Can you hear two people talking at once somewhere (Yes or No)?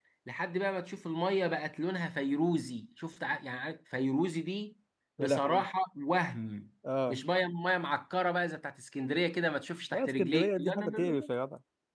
Yes